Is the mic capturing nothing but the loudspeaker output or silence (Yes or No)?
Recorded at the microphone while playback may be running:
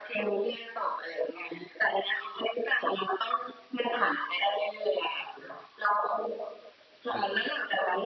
Yes